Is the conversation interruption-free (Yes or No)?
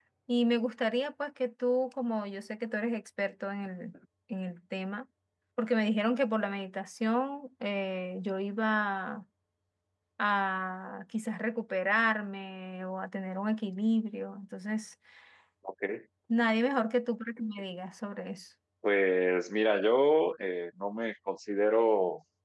Yes